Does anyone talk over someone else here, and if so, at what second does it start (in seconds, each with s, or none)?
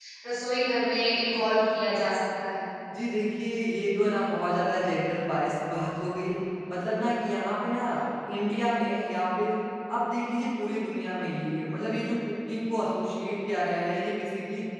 none